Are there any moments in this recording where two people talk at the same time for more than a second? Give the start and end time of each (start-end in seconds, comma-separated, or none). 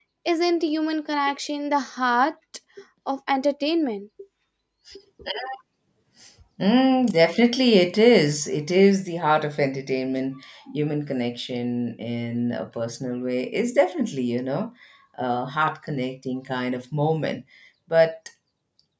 none